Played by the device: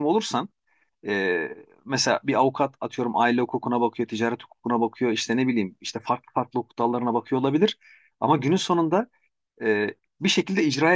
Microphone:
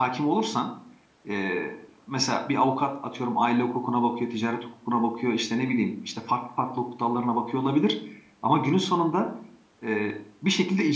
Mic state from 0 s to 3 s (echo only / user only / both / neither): echo only